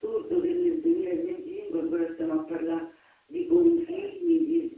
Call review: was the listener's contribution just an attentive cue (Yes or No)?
Yes